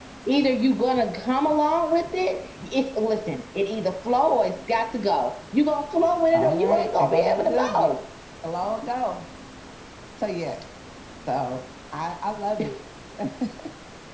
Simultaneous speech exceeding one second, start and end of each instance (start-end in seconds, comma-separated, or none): 6.3-7.9